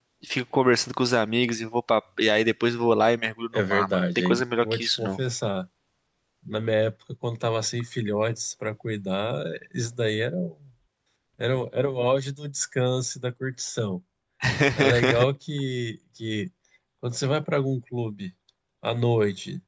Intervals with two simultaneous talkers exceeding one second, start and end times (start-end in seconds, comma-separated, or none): 3.7-5.1